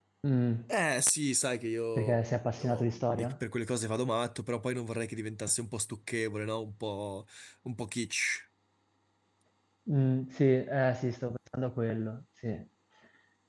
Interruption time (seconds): 1.9 s

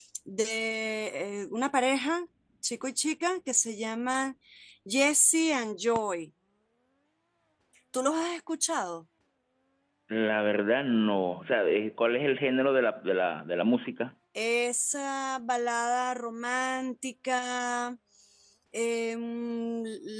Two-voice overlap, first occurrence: none

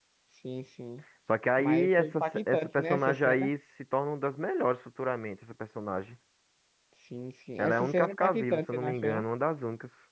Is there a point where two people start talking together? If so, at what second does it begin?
1.6 s

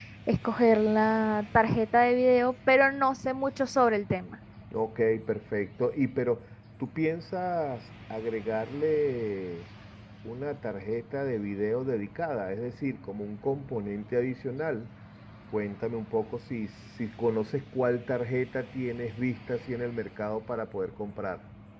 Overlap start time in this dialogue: none

